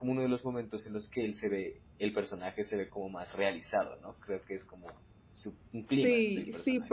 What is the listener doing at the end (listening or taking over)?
taking over